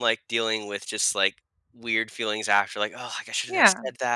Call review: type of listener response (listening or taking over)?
listening